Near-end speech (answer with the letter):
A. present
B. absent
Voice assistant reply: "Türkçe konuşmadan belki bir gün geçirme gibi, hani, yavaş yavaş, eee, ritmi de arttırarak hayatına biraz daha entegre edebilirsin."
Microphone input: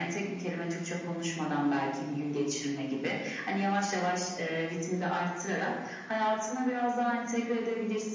B